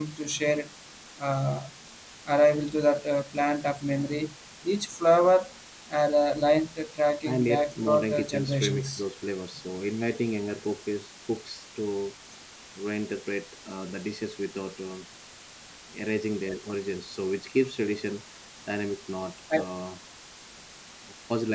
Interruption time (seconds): 7 s

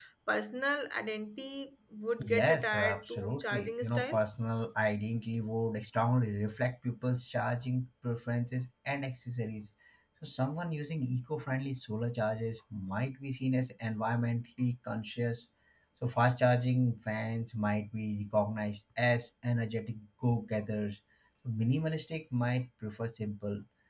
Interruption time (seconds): 2 s

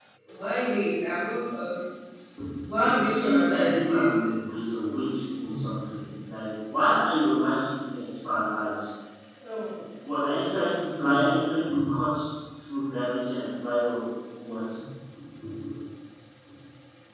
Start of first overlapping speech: 3 s

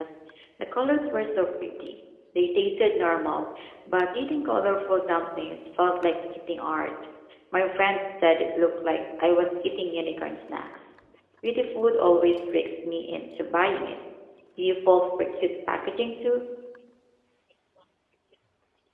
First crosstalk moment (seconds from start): none

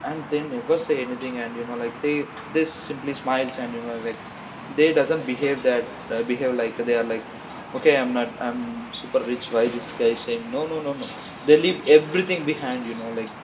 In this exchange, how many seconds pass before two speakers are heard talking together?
none

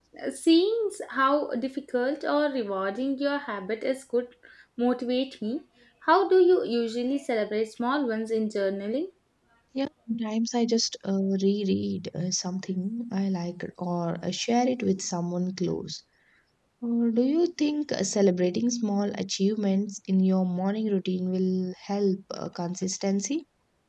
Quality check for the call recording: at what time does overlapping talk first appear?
none

